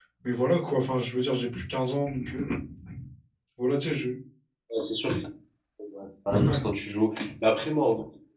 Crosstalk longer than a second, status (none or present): none